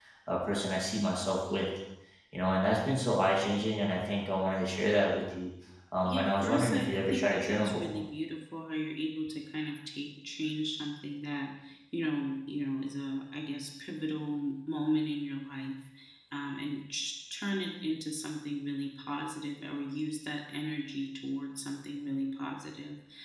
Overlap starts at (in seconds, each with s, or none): 6.0 s